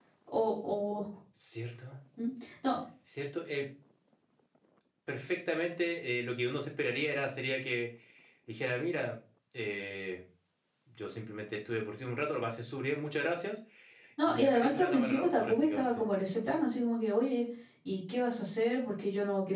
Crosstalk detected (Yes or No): Yes